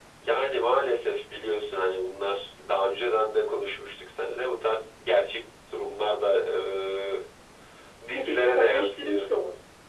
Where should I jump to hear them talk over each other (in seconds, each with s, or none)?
8.1 s